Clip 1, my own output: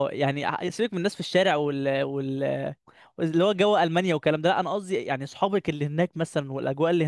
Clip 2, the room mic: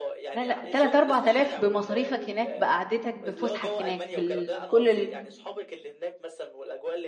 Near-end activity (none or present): present